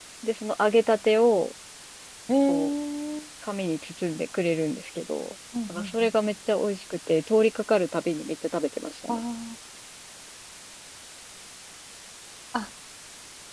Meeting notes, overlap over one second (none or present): none